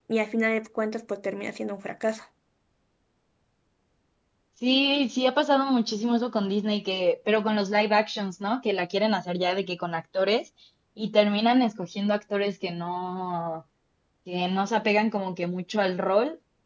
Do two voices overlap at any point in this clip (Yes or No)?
No